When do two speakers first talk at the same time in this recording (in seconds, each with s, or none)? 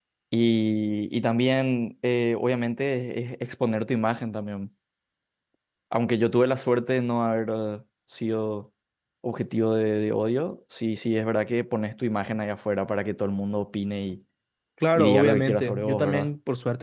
15.0 s